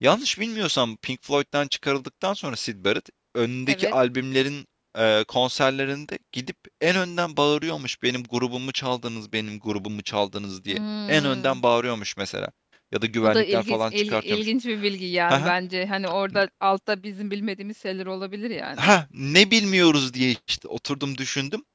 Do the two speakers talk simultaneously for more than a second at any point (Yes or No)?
Yes